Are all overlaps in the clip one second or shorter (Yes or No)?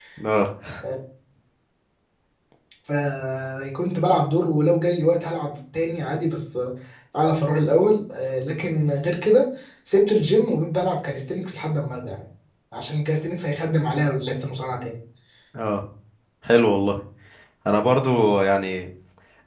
Yes